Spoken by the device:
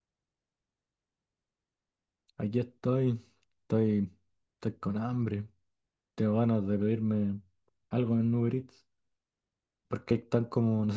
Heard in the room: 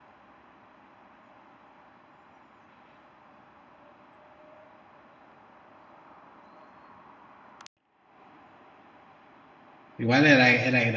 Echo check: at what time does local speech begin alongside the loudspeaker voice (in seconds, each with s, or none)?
10.0 s